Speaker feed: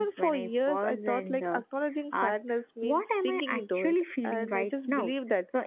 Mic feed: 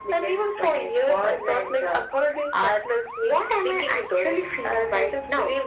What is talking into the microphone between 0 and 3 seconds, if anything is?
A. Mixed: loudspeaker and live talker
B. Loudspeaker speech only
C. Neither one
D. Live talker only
B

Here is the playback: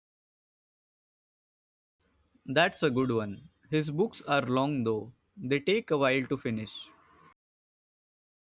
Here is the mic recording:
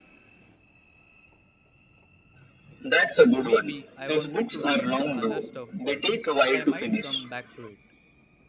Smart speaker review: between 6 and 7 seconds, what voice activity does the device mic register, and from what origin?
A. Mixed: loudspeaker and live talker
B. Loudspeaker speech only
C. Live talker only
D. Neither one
A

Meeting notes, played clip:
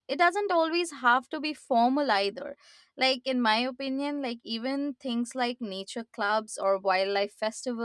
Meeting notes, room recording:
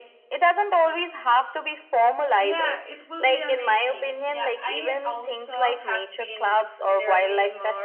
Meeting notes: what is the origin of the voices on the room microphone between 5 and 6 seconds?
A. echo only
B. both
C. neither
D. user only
B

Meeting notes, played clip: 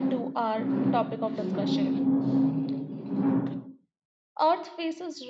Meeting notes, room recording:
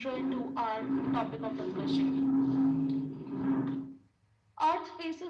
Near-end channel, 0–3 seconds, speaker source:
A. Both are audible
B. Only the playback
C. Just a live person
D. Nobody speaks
B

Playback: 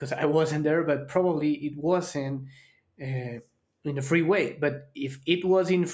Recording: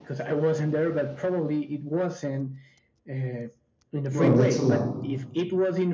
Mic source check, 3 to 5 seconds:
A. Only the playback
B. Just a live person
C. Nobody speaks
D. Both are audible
D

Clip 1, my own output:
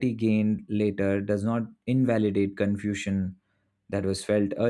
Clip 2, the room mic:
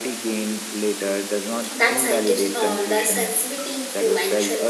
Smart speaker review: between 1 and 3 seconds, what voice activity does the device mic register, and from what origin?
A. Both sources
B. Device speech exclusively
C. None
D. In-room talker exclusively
A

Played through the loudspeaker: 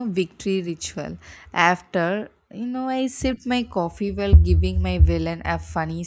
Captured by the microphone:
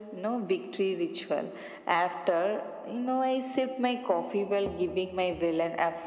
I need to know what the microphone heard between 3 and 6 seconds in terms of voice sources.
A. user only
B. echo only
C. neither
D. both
B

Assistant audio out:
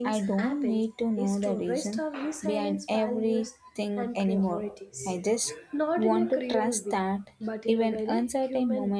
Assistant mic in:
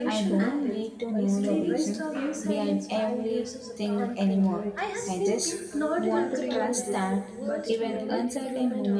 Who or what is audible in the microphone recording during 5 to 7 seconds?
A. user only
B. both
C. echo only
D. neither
B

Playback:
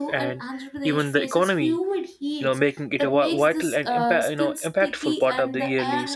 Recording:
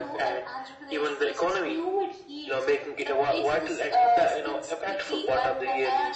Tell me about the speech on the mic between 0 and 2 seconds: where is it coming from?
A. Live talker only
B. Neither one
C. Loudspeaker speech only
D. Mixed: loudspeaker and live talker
C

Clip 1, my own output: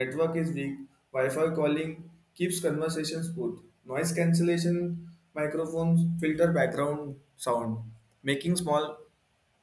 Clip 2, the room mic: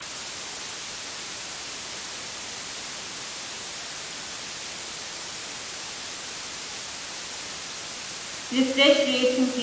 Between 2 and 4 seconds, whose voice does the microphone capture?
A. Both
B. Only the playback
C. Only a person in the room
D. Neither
D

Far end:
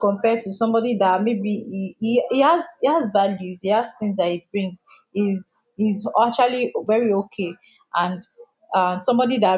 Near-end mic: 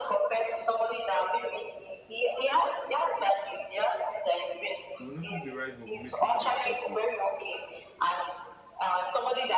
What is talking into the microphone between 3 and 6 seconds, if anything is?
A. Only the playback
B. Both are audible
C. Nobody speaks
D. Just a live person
B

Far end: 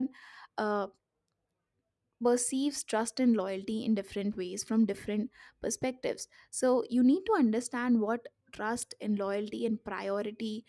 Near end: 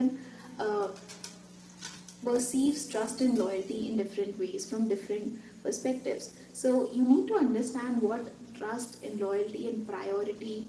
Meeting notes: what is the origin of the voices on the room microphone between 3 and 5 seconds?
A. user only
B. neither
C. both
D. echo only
D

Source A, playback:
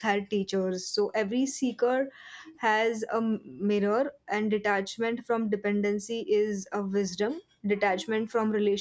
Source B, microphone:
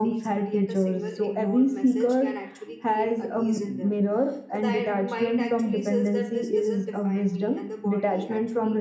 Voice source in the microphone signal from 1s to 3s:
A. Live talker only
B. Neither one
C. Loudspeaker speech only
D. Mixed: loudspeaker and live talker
D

